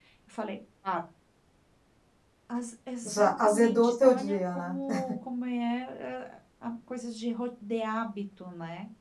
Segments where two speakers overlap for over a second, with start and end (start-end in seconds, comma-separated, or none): 3.1-4.7